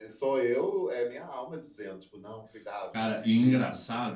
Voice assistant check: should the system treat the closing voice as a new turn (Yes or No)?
Yes